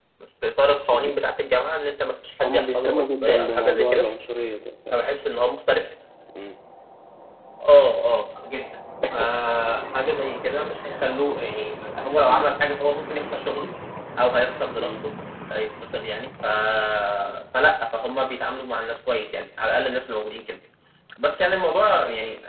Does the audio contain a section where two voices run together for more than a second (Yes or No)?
Yes